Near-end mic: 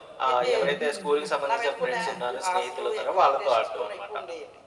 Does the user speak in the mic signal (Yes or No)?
Yes